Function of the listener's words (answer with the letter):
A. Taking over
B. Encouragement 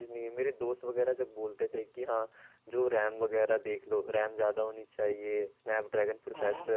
B